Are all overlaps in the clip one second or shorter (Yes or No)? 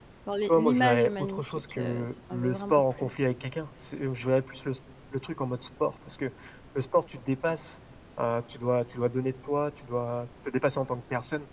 No